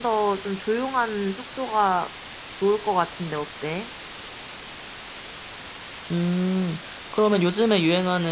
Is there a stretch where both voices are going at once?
No

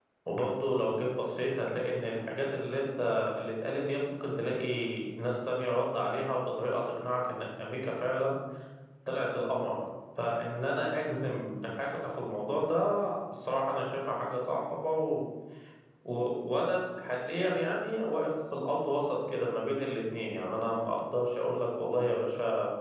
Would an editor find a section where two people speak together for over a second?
No

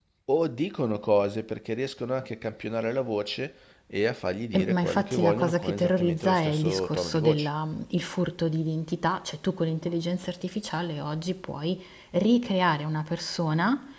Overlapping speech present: Yes, from 4.5 s

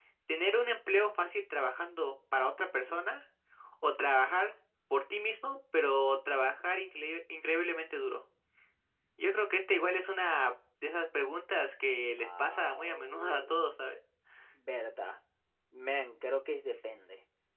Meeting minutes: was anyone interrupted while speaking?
Yes, from 12.2 s

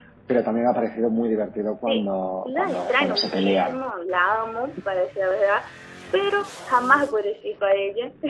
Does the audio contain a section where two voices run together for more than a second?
Yes, from 1.8 s

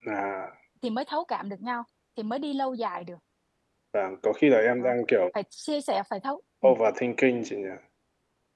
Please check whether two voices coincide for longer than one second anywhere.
No

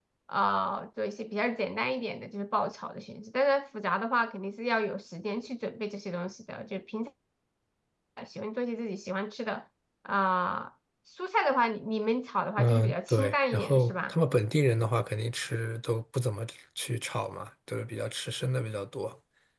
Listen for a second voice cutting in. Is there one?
Yes, from 12.6 s

